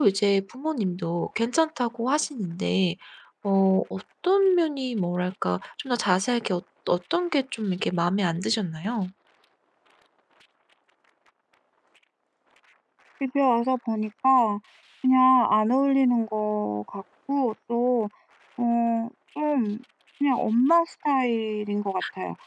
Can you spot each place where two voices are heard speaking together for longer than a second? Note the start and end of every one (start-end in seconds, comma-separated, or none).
none